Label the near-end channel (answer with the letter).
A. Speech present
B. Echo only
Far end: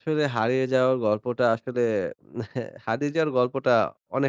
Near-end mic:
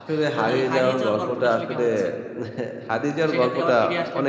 A